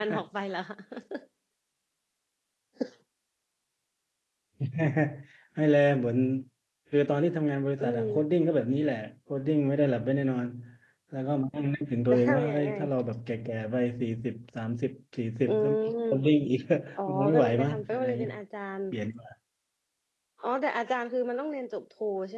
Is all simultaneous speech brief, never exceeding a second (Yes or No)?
No